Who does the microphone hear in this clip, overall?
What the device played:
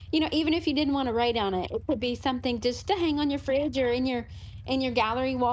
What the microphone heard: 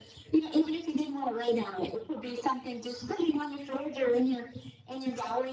echo only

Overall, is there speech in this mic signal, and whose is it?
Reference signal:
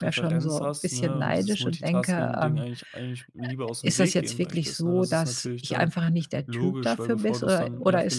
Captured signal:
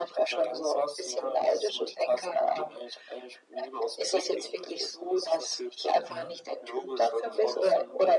both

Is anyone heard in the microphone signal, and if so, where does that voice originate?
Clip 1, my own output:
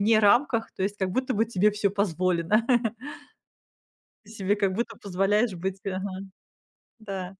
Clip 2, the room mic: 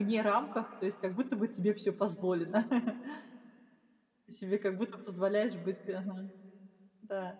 echo only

